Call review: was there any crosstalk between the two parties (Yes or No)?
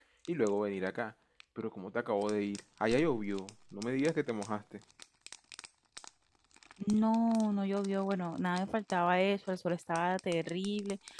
No